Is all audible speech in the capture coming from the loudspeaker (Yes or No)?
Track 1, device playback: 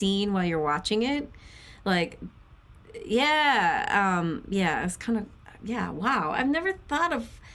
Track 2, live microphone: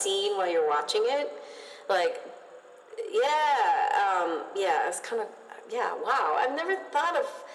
Yes